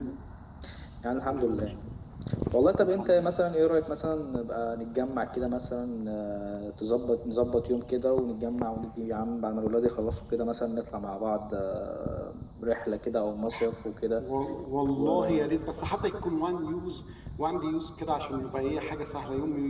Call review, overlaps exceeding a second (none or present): none